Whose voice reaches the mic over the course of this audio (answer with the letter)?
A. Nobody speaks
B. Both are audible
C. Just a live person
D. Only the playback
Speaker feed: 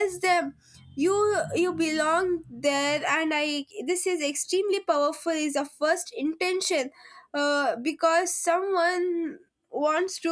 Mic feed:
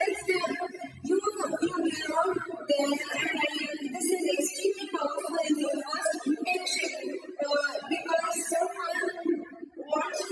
D